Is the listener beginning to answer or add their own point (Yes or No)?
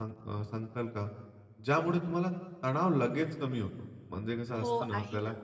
Yes